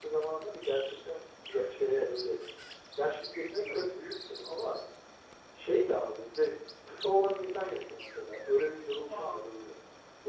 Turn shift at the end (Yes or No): No